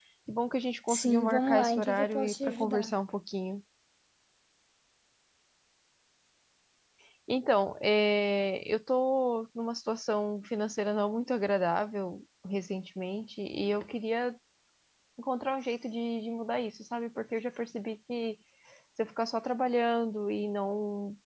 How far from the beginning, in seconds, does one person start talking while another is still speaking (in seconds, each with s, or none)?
0.9 s